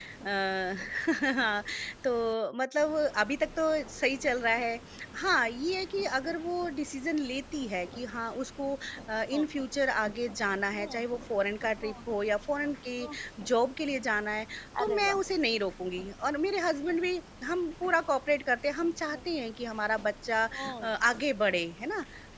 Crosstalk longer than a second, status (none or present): none